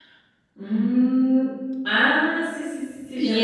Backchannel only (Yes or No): No